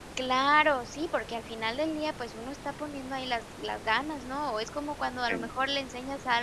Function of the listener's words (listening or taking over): listening